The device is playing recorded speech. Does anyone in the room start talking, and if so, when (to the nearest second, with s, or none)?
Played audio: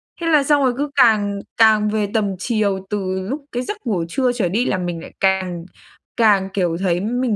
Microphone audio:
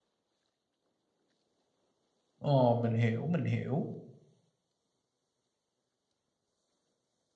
2 s